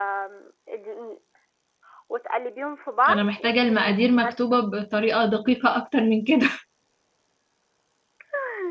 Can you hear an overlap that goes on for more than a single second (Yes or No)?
Yes